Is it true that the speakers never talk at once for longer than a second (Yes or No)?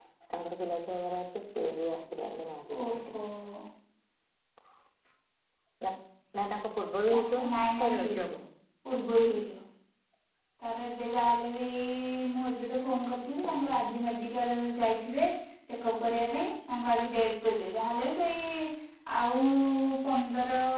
No